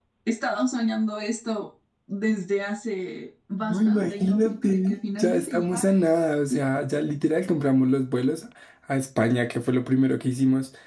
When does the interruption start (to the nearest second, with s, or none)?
4 s